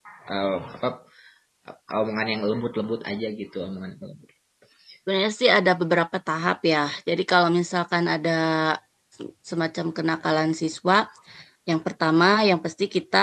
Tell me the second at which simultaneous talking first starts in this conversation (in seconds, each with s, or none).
none